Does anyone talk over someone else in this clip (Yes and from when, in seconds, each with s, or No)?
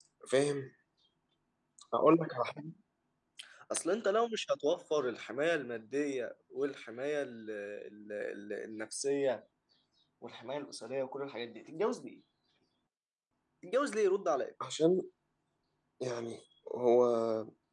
No